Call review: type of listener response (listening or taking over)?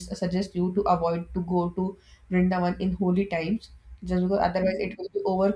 listening